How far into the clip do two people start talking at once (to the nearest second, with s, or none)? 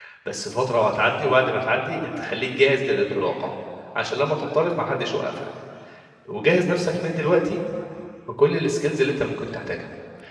none